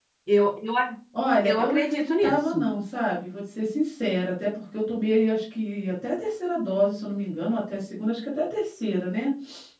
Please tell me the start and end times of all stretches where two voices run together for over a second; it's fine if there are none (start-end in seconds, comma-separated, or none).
1.4-2.7